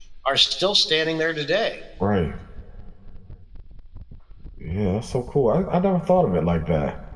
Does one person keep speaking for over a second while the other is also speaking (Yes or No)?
No